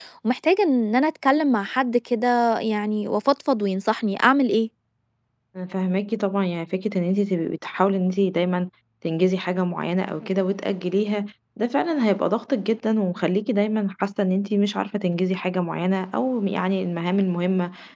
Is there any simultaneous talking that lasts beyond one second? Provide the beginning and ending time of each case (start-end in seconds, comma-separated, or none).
none